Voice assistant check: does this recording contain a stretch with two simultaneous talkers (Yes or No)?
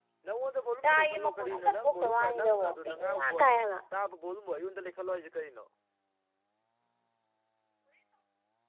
Yes